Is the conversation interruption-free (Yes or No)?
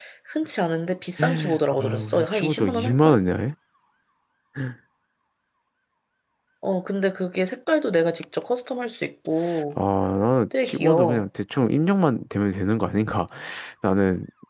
No